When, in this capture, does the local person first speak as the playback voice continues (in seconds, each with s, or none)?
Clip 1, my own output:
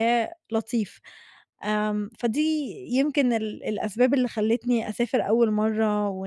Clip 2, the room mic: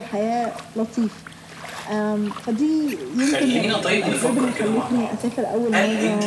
3.2 s